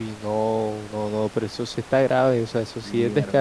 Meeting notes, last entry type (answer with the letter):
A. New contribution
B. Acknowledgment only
A